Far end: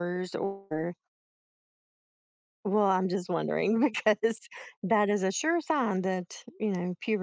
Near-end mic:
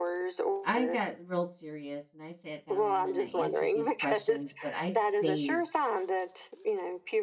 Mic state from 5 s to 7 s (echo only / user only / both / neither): both